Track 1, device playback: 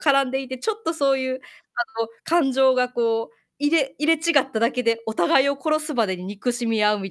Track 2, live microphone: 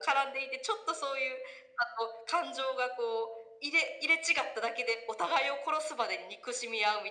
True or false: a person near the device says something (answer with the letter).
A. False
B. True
A